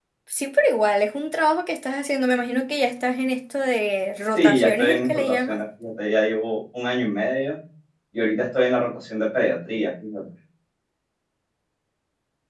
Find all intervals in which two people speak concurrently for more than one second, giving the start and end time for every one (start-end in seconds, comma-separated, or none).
4.3-5.6